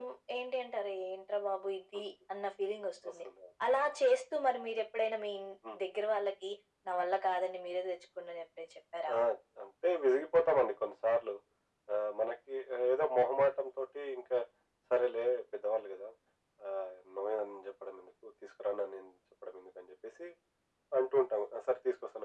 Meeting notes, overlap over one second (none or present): none